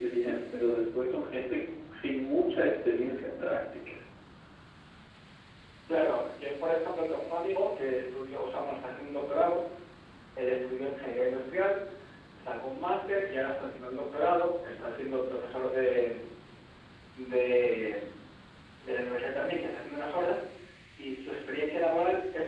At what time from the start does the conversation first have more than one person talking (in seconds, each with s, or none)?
none